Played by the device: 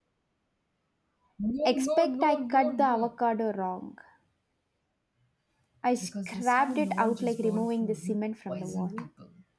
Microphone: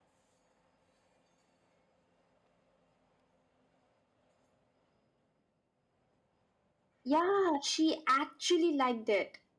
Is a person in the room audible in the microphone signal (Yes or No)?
Yes